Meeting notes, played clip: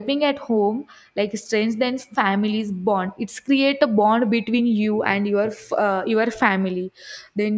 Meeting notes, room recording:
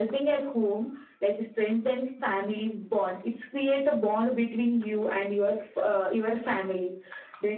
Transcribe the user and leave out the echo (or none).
none